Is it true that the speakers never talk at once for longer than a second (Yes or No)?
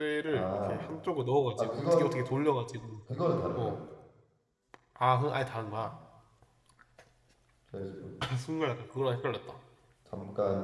Yes